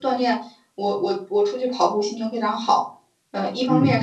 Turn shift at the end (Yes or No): No